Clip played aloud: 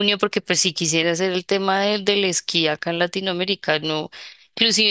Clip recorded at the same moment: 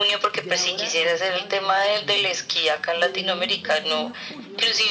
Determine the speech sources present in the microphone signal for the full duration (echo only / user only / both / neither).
both